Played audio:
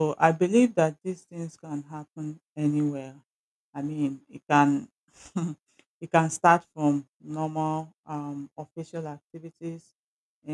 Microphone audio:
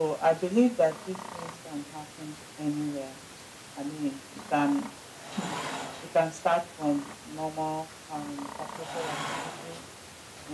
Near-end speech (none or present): none